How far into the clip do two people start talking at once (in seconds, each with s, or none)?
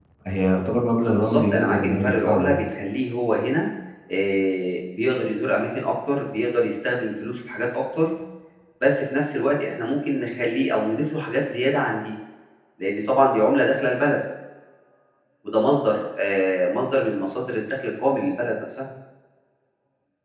1.1 s